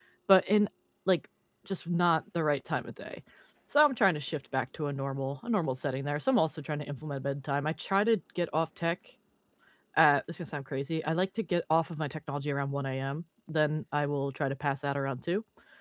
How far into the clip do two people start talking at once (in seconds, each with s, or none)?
none